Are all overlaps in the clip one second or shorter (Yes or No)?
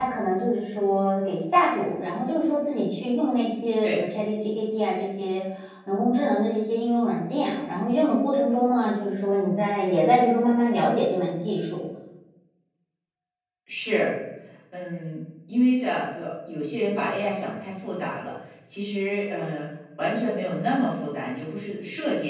Yes